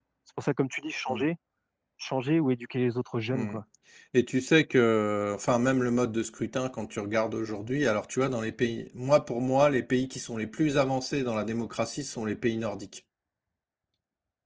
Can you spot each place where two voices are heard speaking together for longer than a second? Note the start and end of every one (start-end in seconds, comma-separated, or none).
none